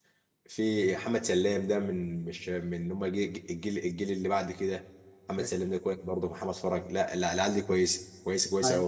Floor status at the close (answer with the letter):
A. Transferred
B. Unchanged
A